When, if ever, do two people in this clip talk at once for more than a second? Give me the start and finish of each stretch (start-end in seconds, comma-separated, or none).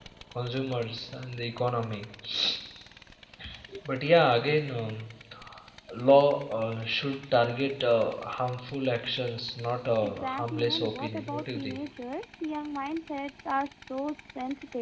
10.0-11.8